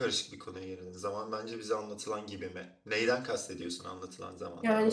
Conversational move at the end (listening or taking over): taking over